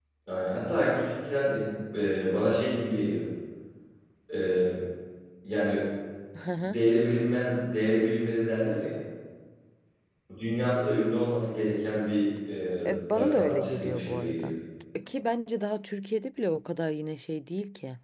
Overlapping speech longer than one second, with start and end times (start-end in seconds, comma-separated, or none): 12.9-14.5